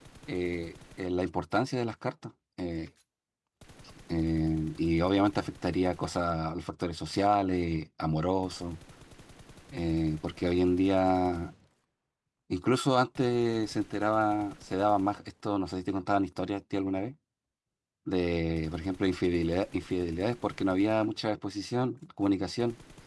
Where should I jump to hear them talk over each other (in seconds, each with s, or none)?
none